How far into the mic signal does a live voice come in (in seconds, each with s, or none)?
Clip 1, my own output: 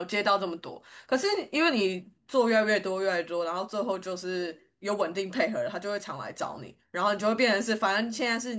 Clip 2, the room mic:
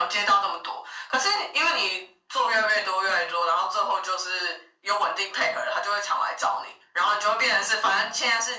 none